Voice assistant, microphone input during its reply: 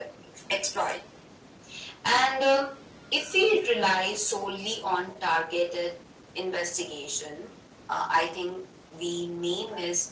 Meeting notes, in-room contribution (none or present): none